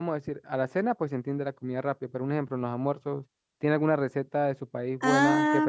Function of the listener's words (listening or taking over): taking over